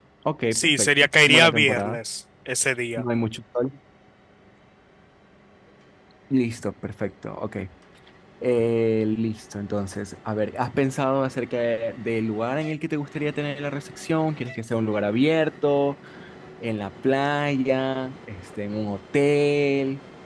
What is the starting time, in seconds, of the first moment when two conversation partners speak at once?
1 s

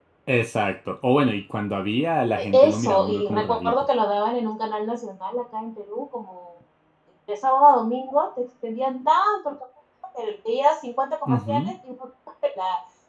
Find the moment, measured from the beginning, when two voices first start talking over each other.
2 s

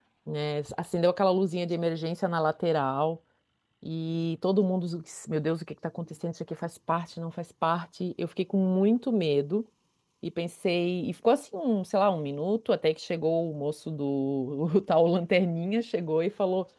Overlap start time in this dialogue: none

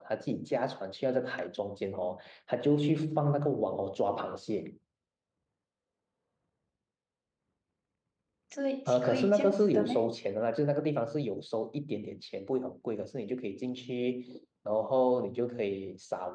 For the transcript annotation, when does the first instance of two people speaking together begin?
9 s

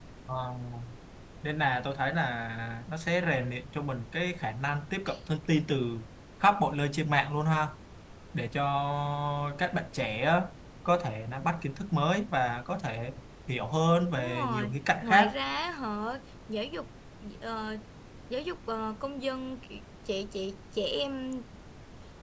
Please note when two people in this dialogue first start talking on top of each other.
14 s

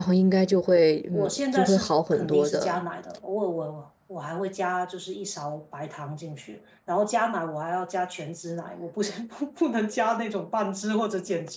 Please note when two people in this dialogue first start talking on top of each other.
1 s

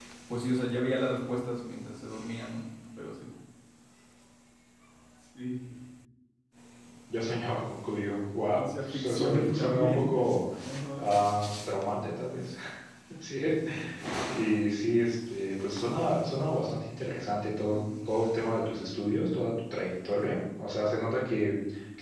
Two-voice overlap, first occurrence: 9 s

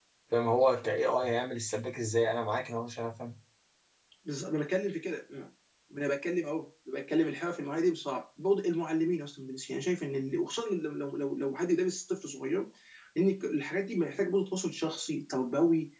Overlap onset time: none

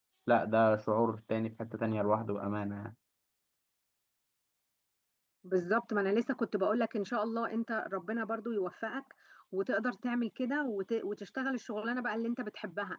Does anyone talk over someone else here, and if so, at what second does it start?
none

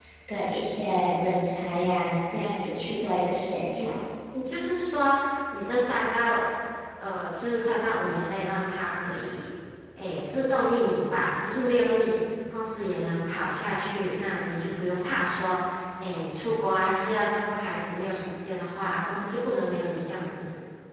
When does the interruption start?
none

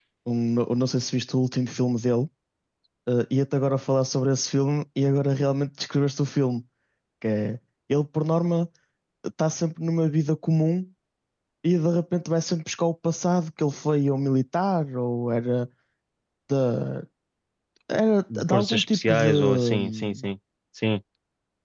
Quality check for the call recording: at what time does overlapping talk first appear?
18 s

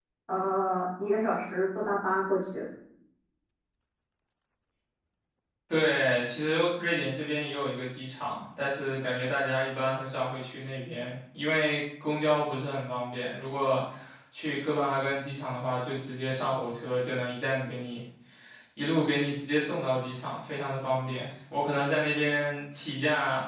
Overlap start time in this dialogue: none

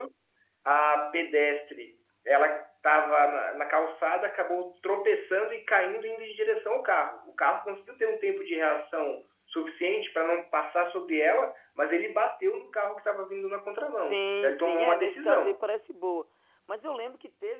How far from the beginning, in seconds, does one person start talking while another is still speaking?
14 s

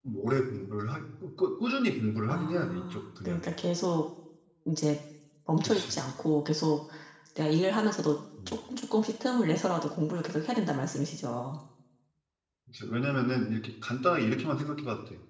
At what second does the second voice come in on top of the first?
2 s

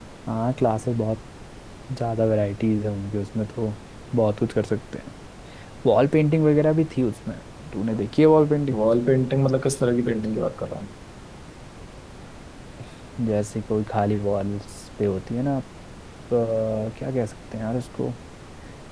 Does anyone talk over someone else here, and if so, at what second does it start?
none

